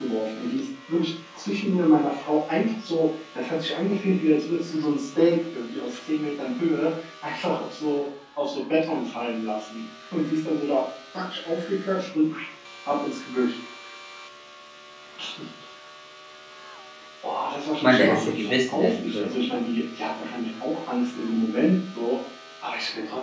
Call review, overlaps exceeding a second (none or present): present